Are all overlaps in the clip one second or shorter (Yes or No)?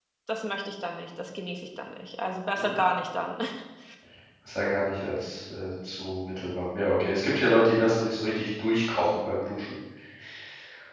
Yes